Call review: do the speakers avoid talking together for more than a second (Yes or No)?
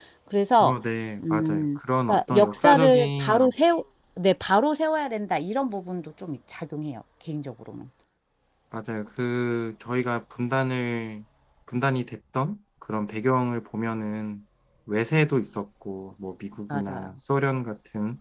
No